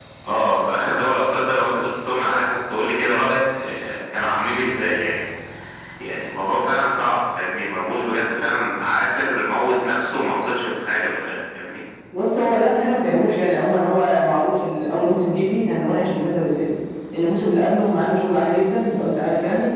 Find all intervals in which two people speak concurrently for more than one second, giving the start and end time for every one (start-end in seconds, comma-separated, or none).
none